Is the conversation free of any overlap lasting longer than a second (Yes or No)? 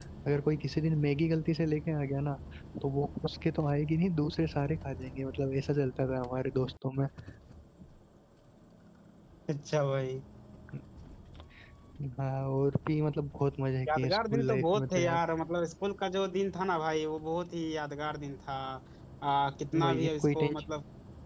No